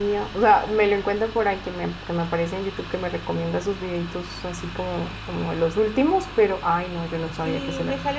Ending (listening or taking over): taking over